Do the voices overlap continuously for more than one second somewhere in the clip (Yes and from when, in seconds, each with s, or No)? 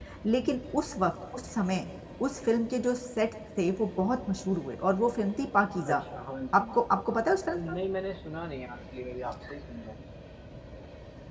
No